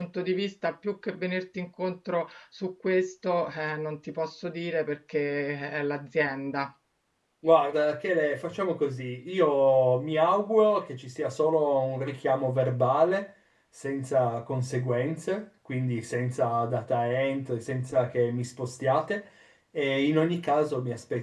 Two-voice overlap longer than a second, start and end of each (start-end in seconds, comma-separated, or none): none